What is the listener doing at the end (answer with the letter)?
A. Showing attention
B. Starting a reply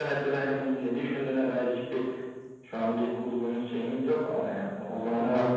A